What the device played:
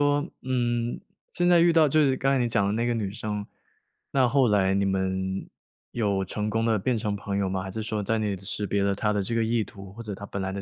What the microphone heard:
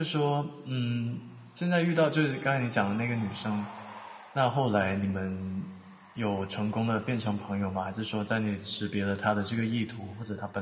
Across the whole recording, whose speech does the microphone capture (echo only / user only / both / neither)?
echo only